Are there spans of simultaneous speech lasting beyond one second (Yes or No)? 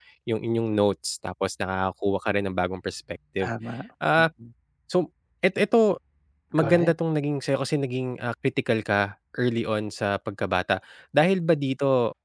No